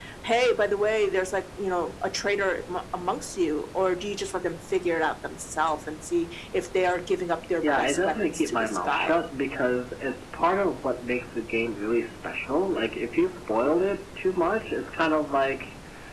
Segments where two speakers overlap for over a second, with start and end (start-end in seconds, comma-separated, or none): 7.6-9.2